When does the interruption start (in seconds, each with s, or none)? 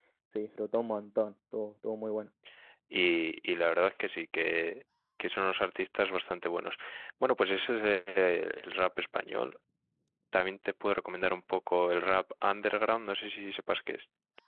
none